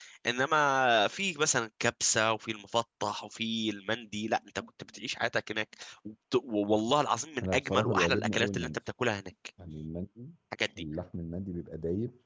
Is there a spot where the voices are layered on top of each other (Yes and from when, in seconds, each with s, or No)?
Yes, from 7.4 s